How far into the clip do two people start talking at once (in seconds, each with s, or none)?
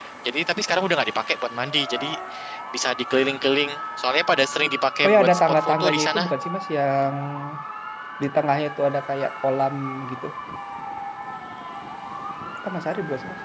5.0 s